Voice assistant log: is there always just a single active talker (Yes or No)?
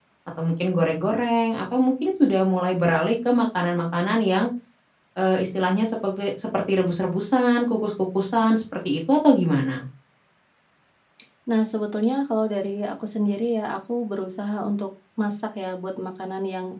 Yes